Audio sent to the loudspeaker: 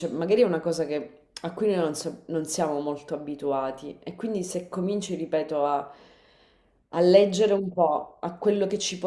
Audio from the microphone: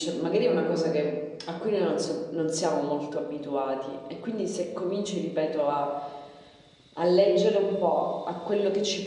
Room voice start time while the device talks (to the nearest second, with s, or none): none